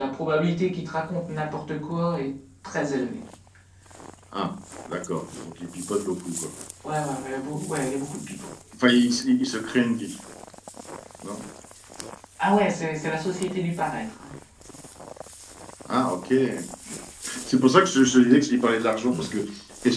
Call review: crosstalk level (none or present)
none